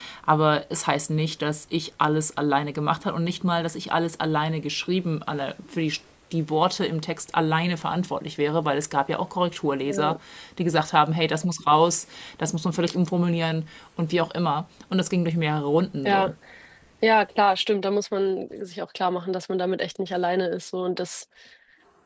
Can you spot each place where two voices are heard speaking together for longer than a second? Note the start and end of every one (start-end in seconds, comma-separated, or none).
none